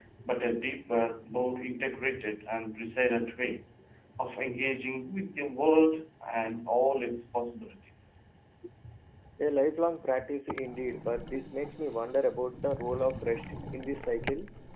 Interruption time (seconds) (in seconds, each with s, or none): none